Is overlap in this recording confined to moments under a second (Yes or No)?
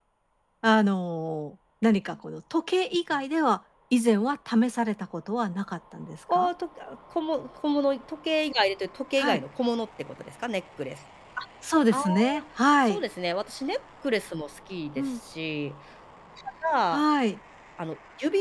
Yes